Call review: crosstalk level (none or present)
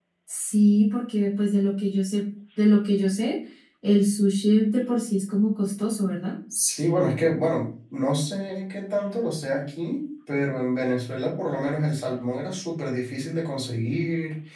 none